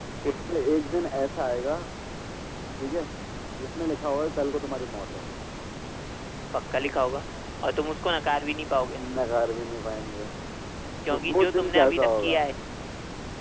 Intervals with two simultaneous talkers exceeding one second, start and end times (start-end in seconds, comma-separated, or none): 11.1-12.3